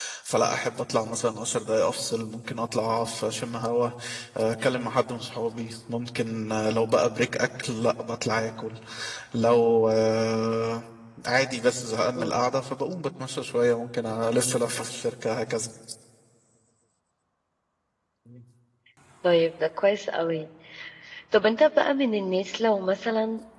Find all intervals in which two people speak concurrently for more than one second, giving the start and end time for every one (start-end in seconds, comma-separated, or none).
none